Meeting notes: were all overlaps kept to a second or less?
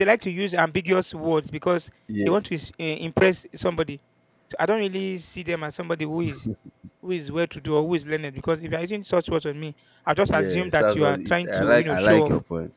No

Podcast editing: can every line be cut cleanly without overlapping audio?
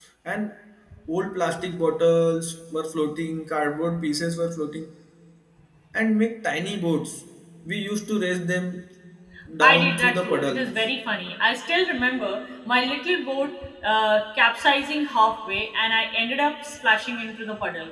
No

